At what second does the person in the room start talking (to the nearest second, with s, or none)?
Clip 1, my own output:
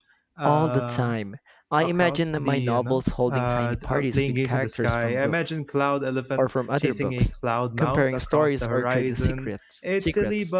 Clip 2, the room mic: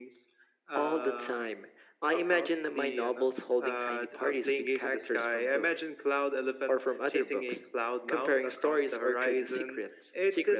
none